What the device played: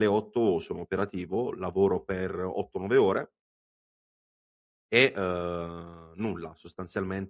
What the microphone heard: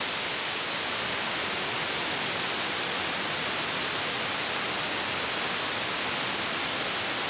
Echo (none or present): none